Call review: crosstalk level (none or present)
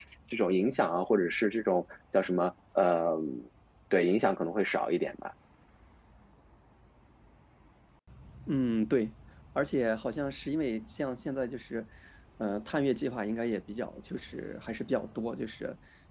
none